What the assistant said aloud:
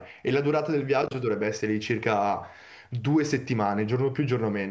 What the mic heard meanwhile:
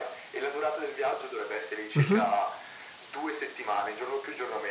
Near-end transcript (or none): mhm,